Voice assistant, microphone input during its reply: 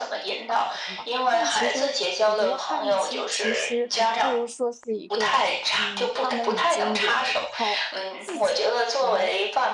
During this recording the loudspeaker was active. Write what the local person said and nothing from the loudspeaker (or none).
发狂嘛。但其实我觉得叛逆期其实不如说是一个，嗯，他们已经有了一套自己来